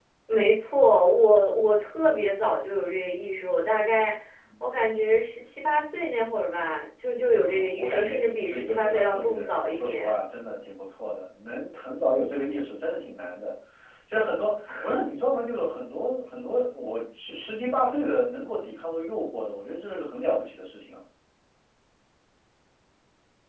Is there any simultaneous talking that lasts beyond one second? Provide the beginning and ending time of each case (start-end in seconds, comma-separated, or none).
7.4-10.1